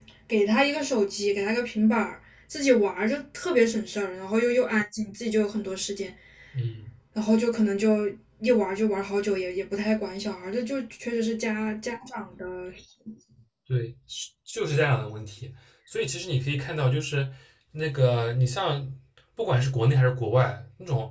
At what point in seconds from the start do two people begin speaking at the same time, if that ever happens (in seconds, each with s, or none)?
none